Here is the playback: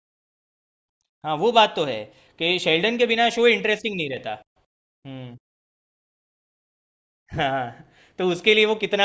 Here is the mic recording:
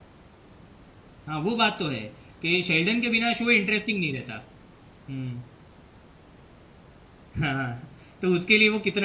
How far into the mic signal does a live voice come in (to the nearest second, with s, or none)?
none